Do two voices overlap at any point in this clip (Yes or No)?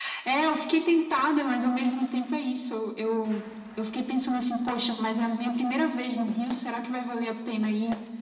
No